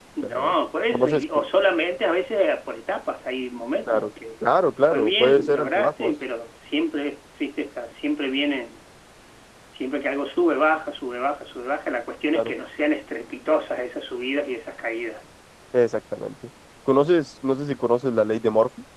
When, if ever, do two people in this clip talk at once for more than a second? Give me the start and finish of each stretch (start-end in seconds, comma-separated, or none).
4.9-6.1